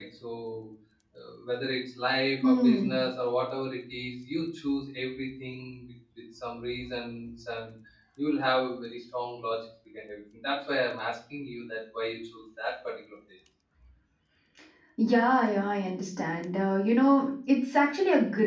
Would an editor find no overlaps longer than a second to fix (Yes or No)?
Yes